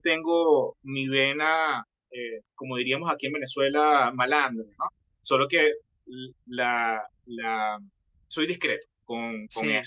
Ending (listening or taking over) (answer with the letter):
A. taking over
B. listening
A